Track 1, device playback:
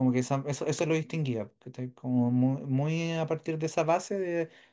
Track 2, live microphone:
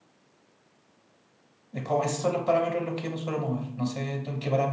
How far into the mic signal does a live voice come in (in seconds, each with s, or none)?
1.7 s